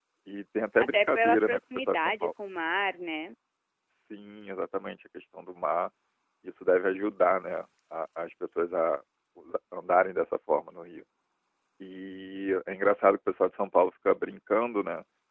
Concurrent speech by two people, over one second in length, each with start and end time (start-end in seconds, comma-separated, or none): 0.8-2.3